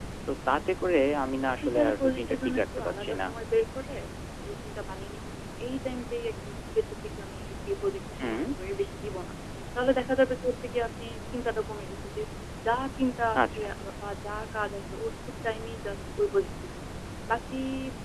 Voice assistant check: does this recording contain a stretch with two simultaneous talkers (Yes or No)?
Yes